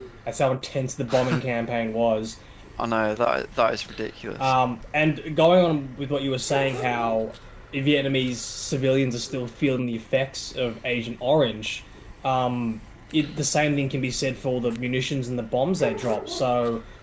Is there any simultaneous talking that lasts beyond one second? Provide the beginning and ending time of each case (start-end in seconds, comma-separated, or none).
none